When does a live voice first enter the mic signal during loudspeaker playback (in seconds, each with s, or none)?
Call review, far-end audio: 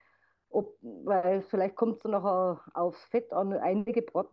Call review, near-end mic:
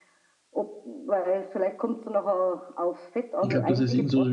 3.4 s